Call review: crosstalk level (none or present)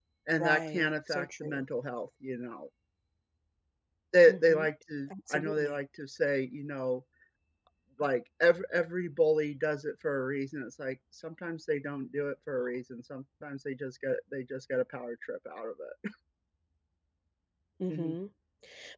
present